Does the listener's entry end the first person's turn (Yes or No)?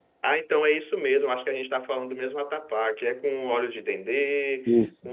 No